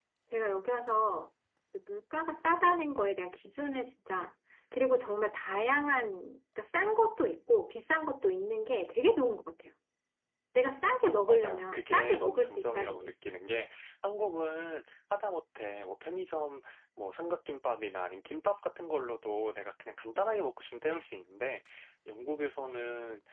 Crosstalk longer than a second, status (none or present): present